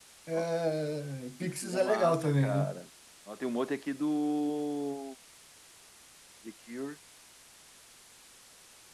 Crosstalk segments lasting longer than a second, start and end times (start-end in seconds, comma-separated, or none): 1.4-2.7